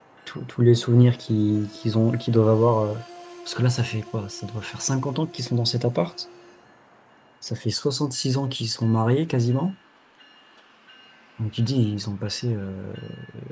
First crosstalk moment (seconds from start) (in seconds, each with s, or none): none